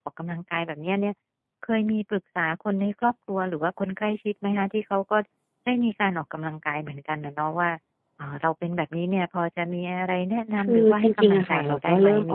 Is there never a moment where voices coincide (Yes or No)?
No